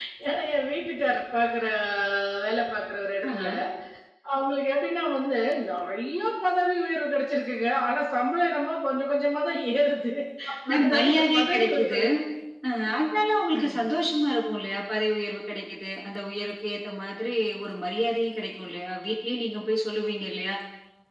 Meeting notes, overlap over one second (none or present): present